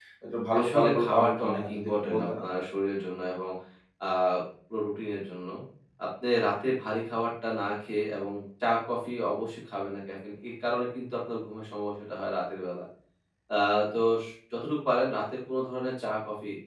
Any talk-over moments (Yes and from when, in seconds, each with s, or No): Yes, from 0.6 s